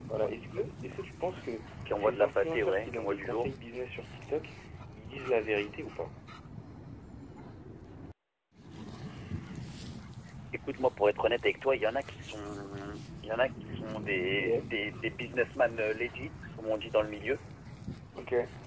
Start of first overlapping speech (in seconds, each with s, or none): 2.0 s